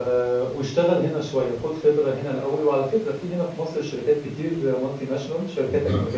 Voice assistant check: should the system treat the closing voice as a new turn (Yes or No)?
No